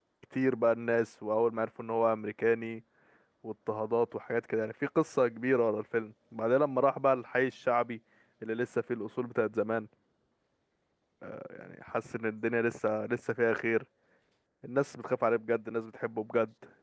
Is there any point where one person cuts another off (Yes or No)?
No